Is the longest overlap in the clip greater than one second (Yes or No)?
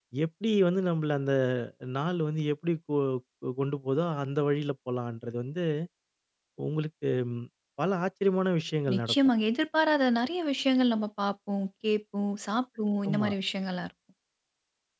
No